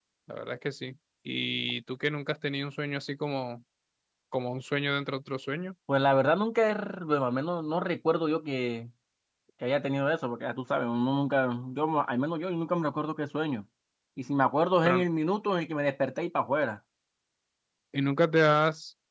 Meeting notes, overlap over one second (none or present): none